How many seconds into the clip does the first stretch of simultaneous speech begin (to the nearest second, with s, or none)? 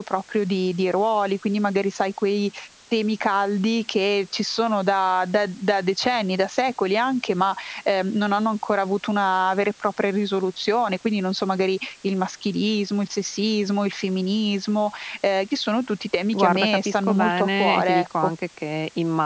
16 s